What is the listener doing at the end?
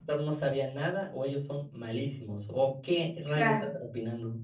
listening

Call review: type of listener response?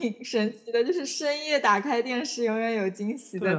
taking over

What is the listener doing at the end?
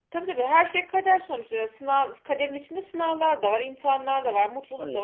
listening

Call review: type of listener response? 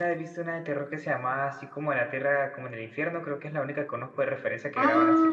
taking over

